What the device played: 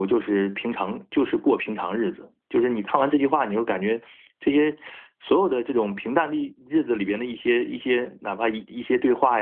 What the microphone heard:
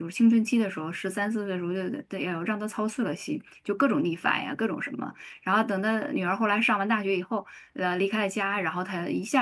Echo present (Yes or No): No